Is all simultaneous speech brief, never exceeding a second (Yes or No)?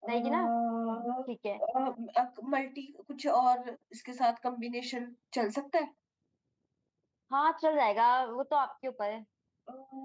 Yes